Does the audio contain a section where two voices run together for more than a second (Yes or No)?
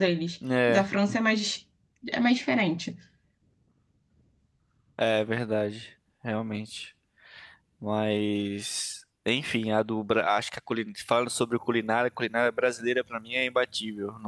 No